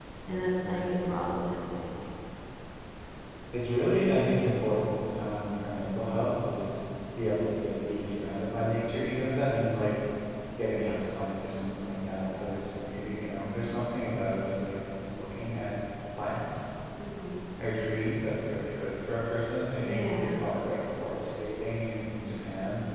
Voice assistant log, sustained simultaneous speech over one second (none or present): none